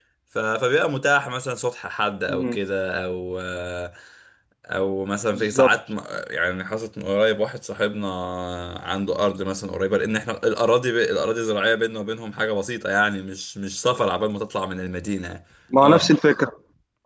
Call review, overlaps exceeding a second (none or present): none